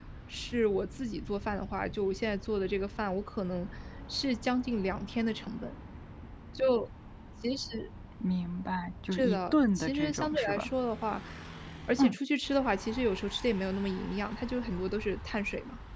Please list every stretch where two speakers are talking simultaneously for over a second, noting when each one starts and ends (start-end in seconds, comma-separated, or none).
9.1-10.7